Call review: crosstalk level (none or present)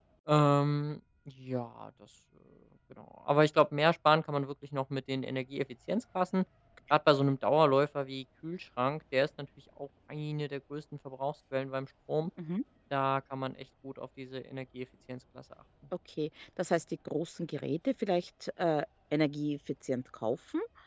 none